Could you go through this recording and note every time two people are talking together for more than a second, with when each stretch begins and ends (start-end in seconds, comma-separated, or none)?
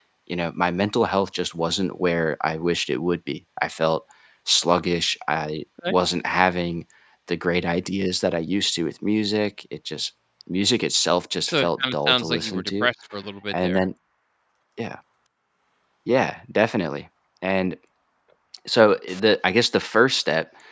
11.4-12.9